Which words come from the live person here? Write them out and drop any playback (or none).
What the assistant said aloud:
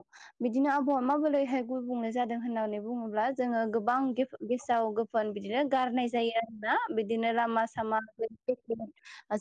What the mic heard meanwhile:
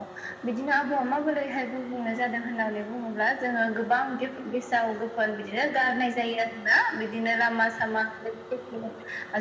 none